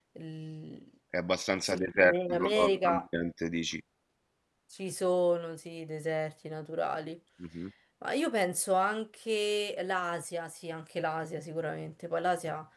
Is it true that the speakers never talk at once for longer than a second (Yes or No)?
No